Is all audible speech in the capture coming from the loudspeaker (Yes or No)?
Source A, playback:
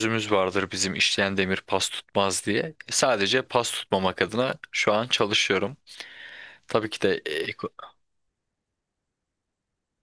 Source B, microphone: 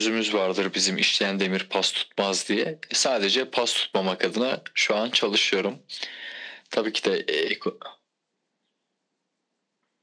Yes